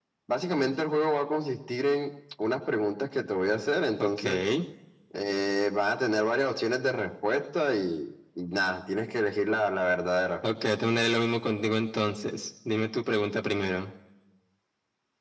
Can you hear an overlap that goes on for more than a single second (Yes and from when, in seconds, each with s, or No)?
No